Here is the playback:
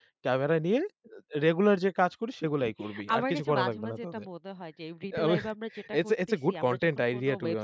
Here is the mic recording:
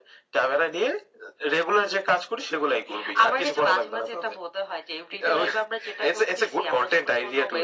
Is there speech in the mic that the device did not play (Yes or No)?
No